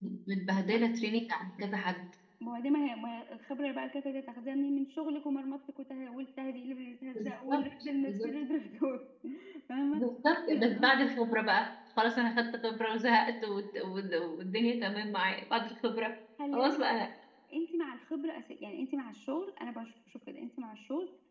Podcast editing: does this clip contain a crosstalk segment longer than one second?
Yes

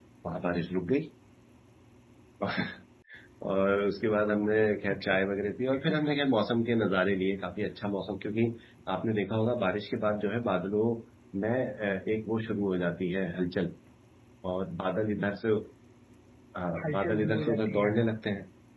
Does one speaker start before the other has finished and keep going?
Yes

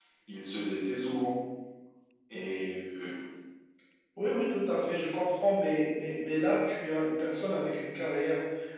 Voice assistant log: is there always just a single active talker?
Yes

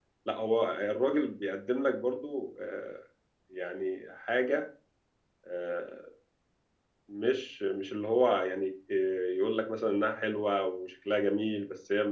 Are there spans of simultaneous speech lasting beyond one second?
No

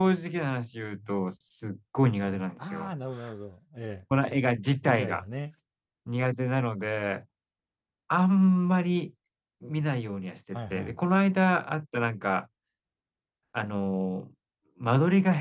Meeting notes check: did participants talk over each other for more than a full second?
No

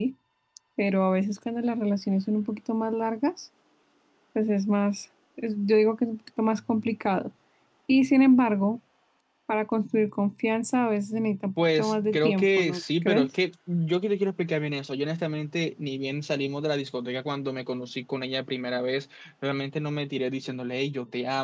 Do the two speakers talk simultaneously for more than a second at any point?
Yes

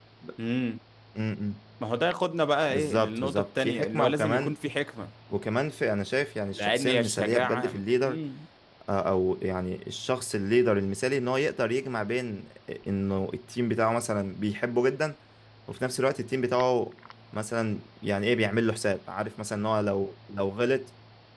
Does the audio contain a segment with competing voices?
Yes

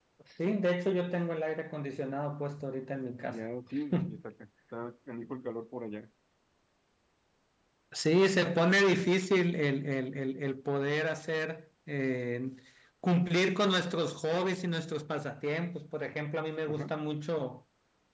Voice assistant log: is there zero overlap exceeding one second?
Yes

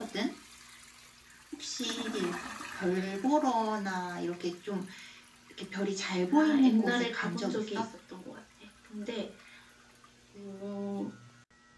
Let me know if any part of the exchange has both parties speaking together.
Yes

